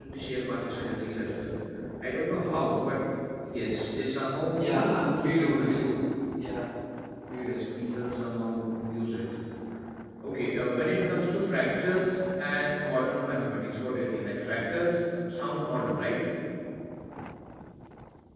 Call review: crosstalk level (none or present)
present